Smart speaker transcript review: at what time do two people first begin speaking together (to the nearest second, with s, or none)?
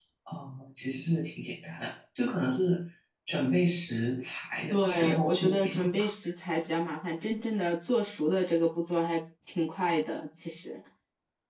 5 s